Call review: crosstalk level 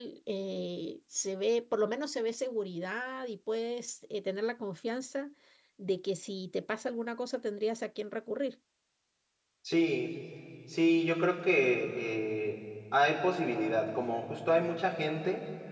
none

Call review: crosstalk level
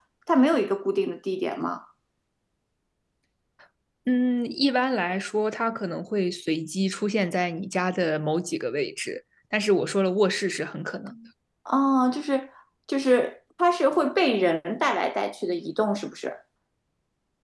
none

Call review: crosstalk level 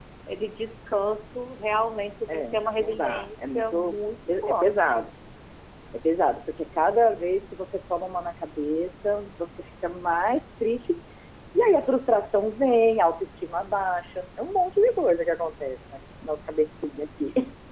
present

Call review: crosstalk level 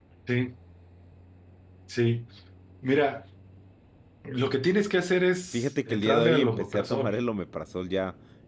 present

